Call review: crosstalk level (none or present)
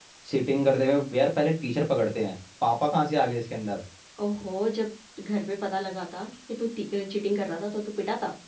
none